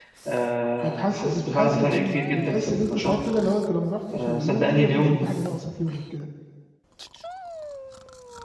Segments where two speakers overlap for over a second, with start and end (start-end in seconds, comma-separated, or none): 0.8-3.2, 4.1-5.3